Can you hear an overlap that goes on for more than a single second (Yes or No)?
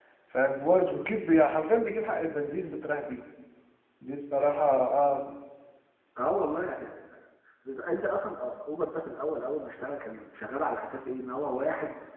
No